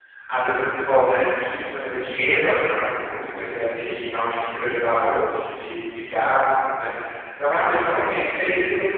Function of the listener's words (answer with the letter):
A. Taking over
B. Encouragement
B